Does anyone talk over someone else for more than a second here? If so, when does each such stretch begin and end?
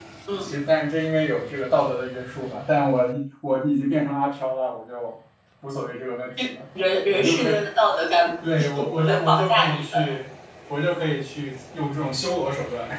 8.4-10.0

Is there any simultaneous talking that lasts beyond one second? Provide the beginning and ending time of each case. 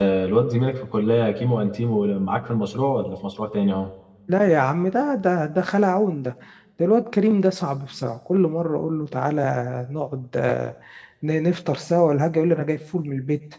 none

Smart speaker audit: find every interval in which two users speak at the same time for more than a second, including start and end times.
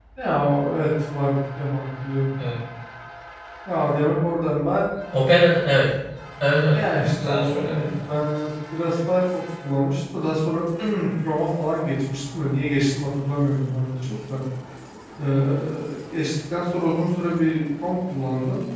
6.7-8.1

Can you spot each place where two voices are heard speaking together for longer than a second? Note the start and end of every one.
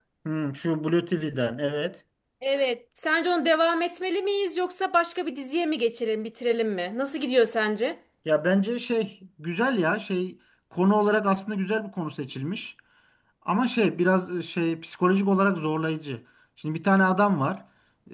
none

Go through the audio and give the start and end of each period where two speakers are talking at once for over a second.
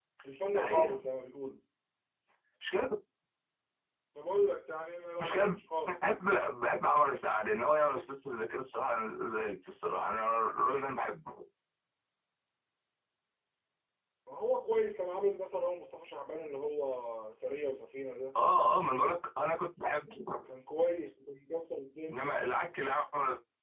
none

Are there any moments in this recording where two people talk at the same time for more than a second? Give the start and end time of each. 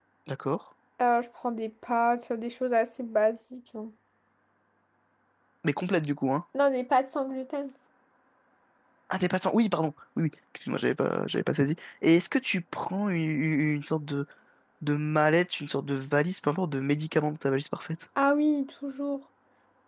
none

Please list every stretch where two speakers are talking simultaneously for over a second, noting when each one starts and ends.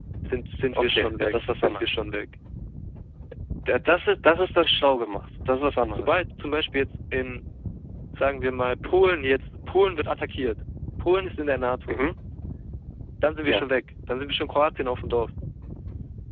0.7-2.0

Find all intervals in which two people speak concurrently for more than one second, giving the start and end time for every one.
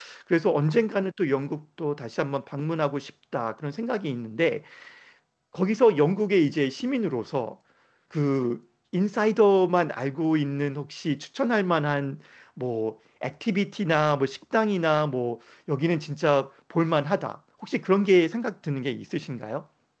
none

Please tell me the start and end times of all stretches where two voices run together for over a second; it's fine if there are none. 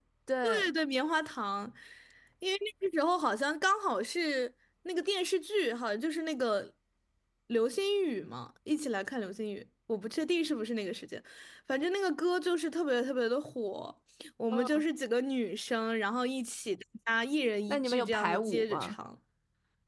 17.7-18.9

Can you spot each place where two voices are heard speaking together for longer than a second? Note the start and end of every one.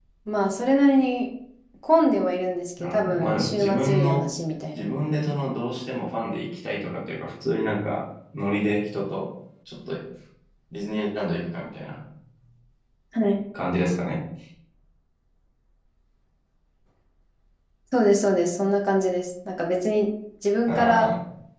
2.8-4.3

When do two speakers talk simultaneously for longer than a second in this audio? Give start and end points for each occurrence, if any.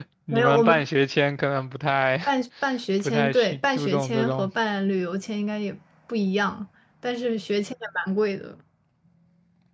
3.0-4.5

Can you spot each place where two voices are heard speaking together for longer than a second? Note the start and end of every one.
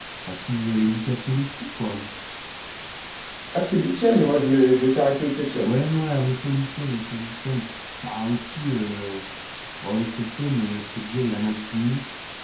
none

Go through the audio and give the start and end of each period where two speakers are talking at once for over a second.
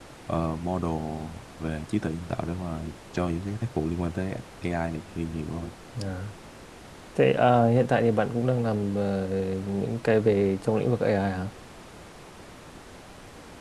none

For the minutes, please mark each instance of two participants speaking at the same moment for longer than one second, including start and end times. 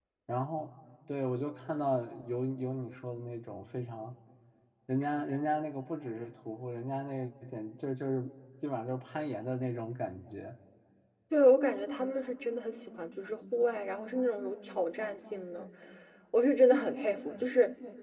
none

